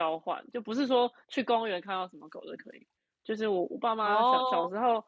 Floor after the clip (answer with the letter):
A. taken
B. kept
B